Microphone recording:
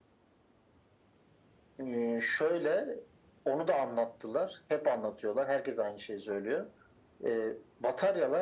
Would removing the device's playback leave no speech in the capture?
Yes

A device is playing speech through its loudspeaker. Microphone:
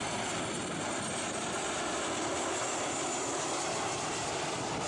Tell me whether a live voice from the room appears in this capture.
No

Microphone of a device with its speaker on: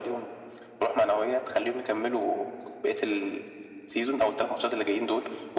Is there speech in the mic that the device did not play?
No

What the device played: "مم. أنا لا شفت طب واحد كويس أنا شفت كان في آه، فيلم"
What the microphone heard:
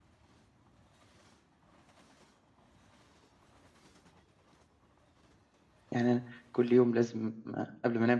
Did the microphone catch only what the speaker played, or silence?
No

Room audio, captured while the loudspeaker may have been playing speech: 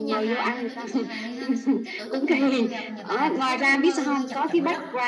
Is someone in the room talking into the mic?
Yes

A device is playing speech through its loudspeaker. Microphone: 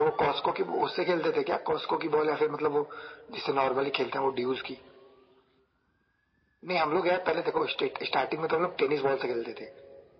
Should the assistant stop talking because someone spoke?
No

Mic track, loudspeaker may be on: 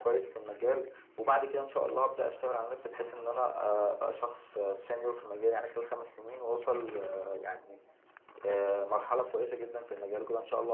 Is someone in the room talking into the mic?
No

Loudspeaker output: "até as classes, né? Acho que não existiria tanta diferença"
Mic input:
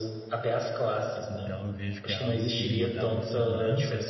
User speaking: Yes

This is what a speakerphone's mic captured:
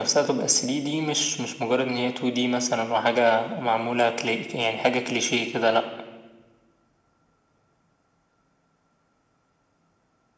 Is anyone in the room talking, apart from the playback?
No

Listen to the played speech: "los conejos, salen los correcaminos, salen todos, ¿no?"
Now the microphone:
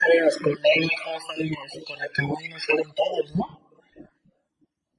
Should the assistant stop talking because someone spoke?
No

